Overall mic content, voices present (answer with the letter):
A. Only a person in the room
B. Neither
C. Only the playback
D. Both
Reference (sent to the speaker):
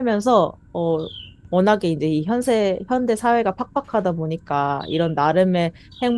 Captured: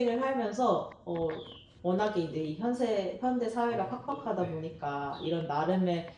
D